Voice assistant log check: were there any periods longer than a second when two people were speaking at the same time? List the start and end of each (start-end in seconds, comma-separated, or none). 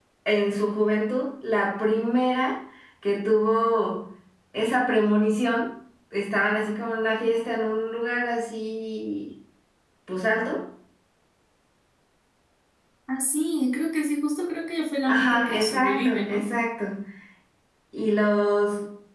15.1-16.4